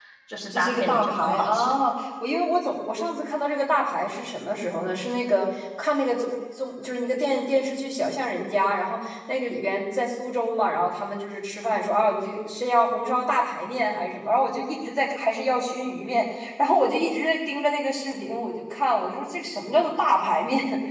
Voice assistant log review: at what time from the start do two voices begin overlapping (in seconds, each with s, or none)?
0.5 s